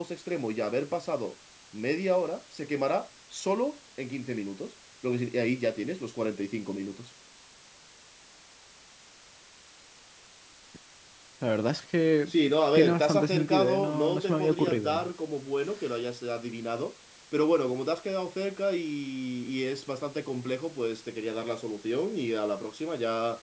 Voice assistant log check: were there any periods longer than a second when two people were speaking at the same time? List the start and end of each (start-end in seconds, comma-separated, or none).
12.8-15.0